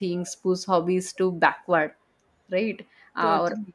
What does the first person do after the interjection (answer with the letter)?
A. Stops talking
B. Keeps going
B